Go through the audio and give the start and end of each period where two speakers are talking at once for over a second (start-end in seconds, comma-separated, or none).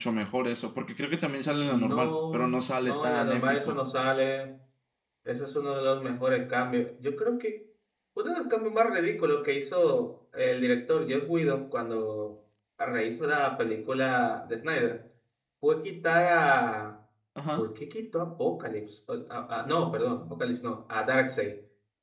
1.6-3.8